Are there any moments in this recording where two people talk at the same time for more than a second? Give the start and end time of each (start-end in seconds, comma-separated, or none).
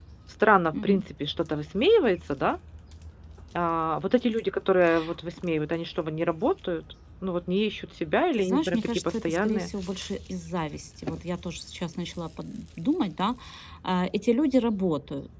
8.3-9.7